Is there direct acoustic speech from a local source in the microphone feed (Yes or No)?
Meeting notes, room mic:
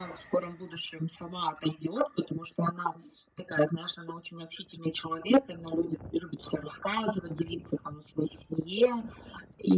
No